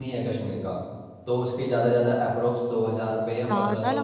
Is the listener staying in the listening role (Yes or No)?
No